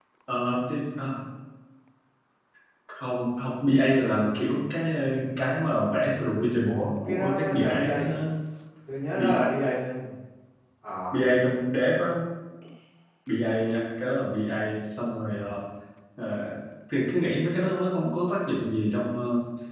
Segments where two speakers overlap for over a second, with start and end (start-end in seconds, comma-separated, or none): 6.7-8.2